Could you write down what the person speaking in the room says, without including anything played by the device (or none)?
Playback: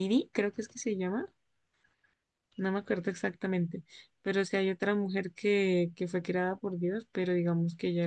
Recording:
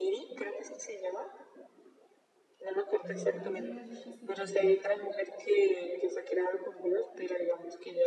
no creyera yo que hasta tal punto.